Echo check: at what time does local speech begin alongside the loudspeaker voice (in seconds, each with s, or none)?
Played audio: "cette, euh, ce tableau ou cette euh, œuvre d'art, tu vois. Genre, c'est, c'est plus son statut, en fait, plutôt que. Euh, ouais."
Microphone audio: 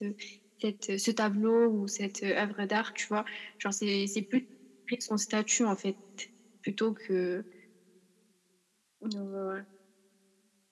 none